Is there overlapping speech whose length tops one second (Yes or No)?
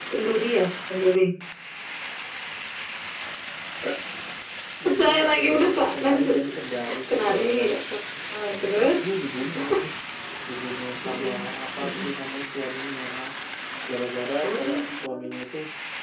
Yes